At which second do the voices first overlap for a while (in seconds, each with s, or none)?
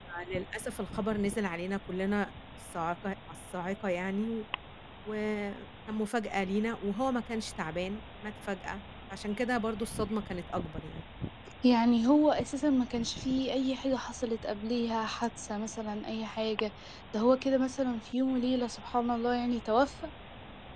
none